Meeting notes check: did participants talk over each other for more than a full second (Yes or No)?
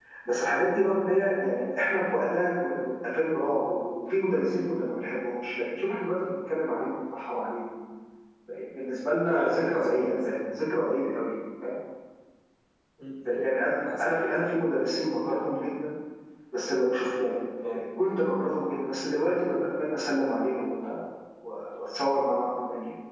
Yes